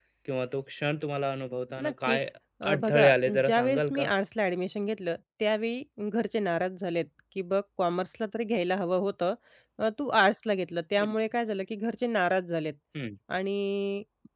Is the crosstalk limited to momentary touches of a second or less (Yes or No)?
No